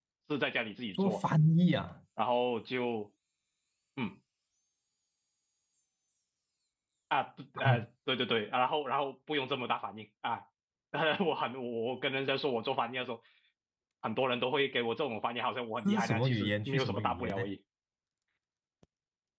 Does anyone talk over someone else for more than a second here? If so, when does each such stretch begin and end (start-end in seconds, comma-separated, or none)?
15.8-17.4